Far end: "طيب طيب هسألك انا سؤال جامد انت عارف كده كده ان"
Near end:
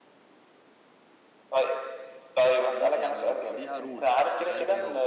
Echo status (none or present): present